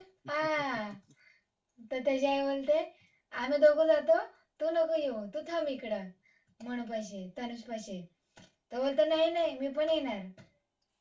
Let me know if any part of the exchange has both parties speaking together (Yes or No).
No